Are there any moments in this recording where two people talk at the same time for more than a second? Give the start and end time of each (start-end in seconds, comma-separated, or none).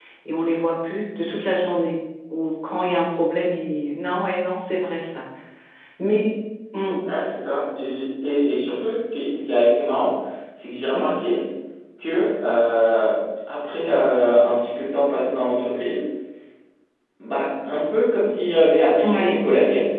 none